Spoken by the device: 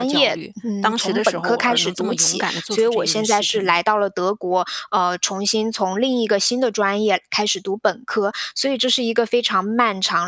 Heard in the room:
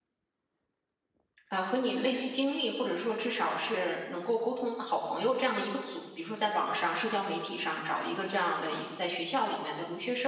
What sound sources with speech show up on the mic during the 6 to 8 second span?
user only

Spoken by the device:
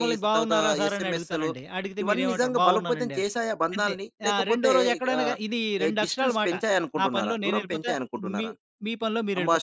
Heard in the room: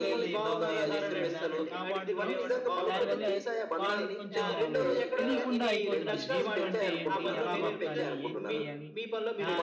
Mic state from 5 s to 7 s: both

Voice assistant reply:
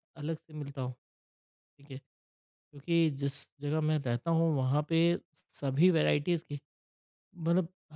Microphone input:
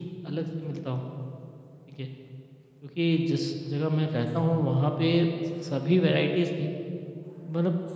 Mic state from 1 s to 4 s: echo only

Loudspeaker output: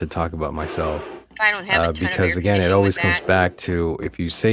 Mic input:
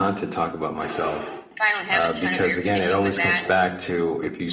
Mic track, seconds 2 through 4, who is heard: echo only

